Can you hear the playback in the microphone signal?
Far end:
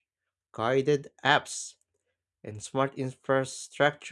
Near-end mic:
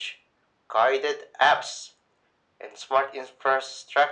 Yes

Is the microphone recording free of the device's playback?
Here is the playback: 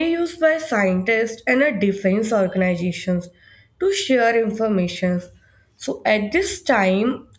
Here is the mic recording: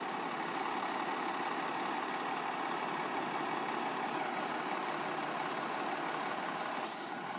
Yes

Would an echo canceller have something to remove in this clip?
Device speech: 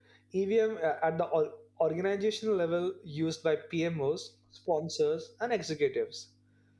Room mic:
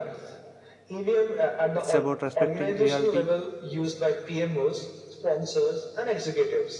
Yes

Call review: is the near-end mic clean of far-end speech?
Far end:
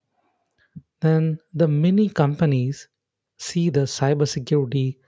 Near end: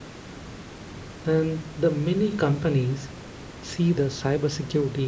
No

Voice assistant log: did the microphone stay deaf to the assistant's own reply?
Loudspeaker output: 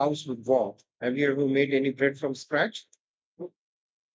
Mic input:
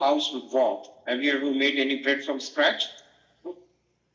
No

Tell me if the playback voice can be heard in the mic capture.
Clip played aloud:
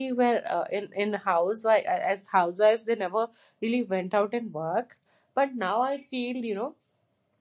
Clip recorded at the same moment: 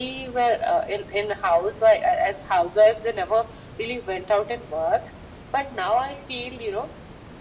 Yes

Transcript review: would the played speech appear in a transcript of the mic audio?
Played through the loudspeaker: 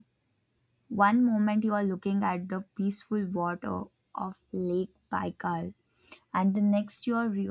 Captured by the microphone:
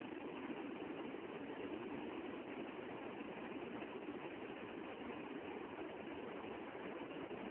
No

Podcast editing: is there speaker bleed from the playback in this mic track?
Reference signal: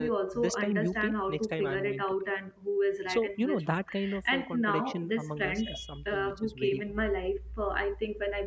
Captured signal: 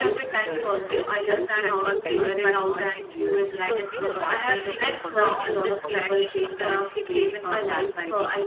Yes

